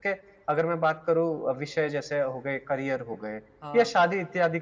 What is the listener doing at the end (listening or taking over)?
listening